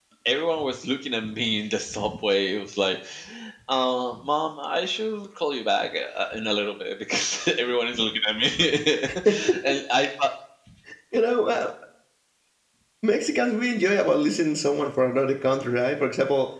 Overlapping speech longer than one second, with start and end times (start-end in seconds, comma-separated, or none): none